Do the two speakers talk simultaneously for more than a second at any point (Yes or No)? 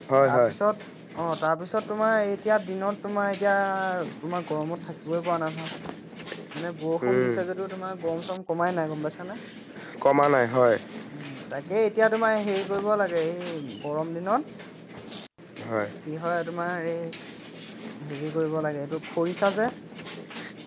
No